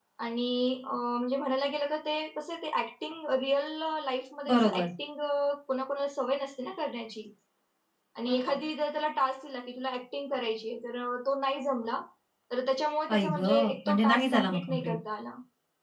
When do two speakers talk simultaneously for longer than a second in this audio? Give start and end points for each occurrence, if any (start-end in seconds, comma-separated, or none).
13.1-15.0